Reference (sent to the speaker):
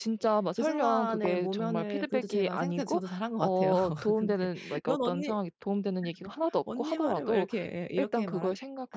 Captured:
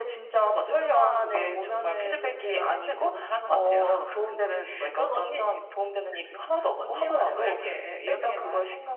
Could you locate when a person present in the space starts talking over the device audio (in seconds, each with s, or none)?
none